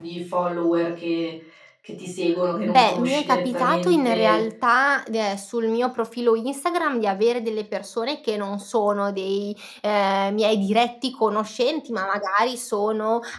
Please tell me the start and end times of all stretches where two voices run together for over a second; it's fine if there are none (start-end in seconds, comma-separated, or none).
2.6-4.4